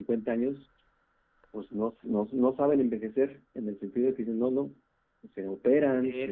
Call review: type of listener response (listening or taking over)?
taking over